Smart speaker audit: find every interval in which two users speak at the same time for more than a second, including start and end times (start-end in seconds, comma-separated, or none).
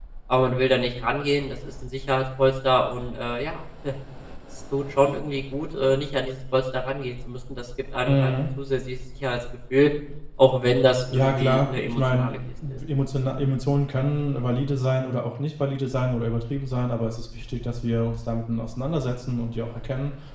11.1-12.3